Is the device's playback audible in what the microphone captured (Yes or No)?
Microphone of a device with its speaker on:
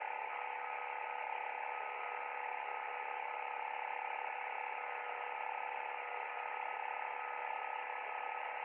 No